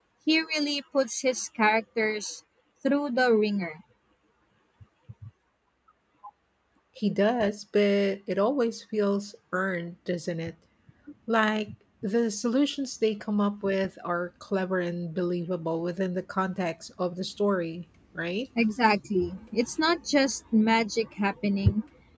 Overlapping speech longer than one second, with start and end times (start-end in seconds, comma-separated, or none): none